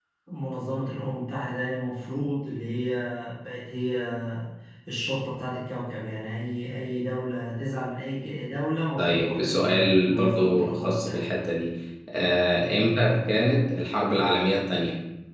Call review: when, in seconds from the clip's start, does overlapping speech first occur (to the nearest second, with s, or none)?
9 s